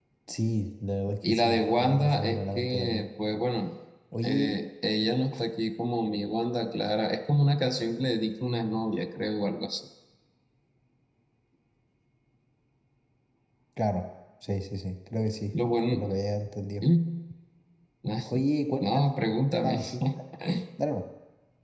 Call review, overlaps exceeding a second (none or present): present